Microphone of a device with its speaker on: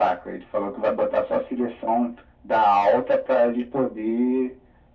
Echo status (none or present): present